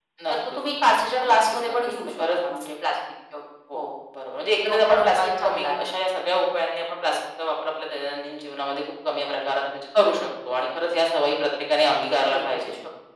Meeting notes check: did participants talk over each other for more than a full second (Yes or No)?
Yes